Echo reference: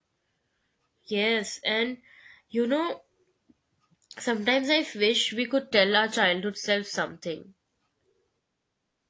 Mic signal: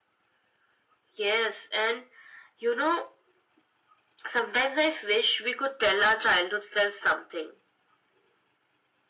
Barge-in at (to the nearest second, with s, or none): none